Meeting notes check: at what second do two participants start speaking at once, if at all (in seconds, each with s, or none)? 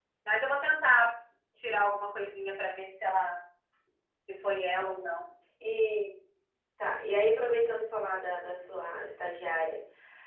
none